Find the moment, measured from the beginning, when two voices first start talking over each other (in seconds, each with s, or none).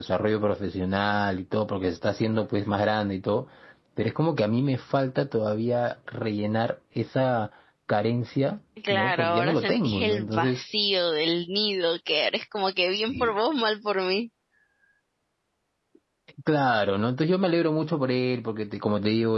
8.9 s